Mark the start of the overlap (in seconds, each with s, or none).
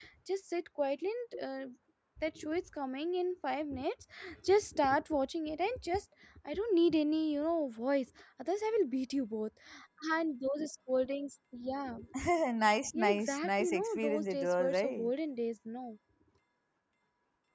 12.9 s